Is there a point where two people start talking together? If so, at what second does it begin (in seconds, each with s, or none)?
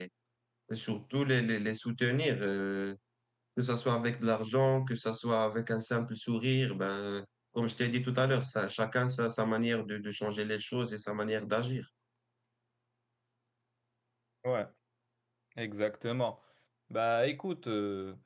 none